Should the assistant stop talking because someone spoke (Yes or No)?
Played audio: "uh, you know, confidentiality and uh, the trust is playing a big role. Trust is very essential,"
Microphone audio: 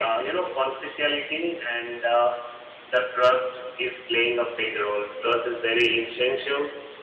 No